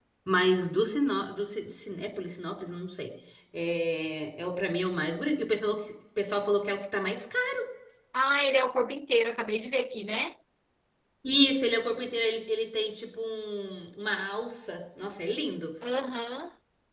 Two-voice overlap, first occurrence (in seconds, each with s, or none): none